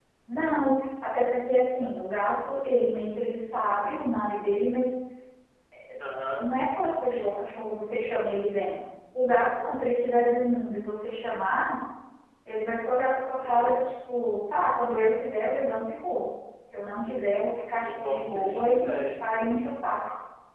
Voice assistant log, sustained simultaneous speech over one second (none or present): present